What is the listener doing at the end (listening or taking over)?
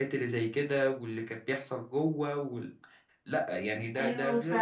taking over